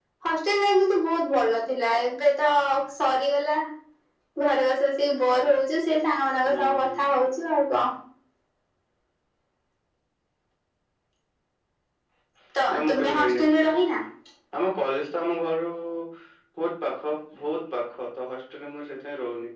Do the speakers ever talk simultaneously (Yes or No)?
Yes